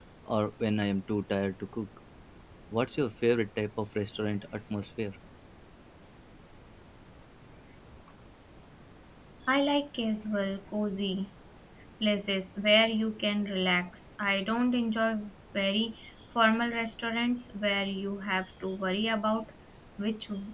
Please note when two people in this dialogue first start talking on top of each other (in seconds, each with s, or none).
none